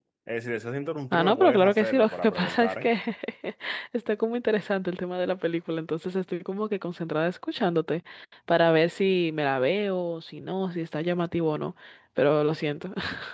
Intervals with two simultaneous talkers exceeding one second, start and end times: 1.1-2.9

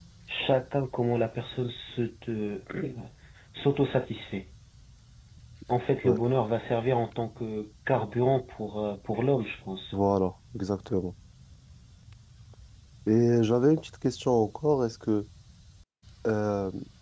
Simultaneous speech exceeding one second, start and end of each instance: none

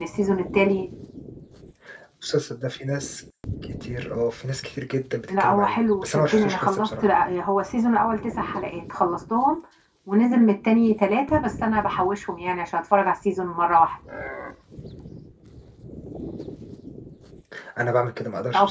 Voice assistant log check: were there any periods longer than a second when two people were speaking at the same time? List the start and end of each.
5.3-7.1

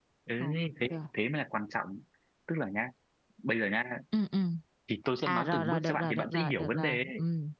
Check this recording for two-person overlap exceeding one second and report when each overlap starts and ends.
5.3-7.0

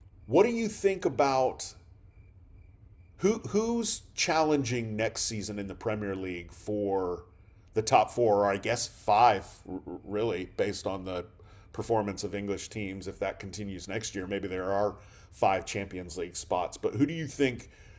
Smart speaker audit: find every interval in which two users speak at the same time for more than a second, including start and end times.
none

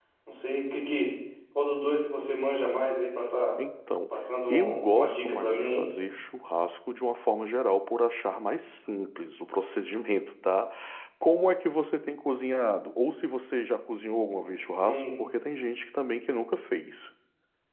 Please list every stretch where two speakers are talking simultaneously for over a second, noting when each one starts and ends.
4.5-5.9

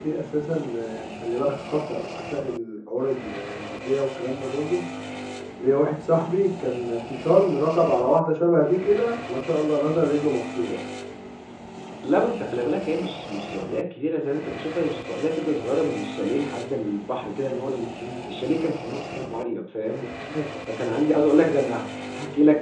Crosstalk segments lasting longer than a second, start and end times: none

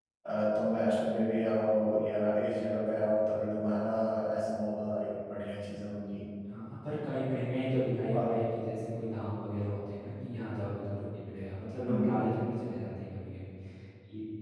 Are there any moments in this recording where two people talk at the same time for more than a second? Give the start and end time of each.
none

